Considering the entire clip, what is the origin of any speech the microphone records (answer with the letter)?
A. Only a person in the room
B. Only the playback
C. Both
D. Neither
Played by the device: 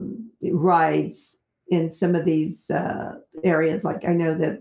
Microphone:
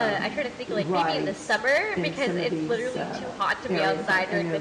C